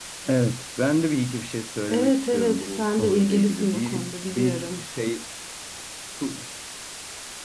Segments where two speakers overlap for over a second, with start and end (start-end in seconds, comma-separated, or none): 1.9-4.9